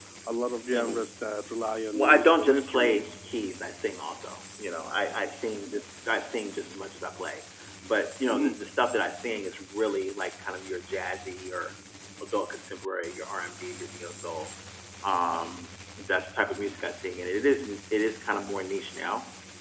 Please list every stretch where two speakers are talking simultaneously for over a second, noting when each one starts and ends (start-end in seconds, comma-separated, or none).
1.9-3.1